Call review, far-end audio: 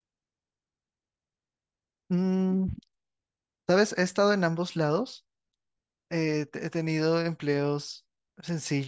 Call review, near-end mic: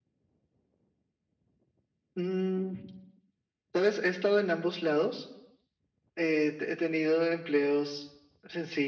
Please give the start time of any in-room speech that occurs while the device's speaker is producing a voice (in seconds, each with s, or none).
none